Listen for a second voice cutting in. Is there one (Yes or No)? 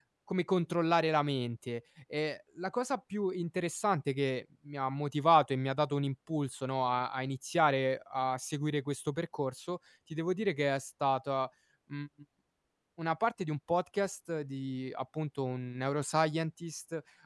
No